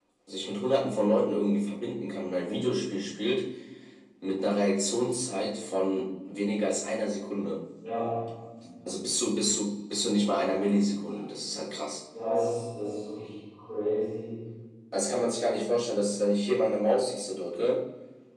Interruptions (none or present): none